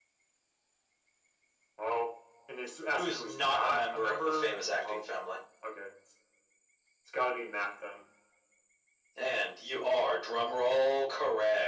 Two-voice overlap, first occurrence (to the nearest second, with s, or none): 3 s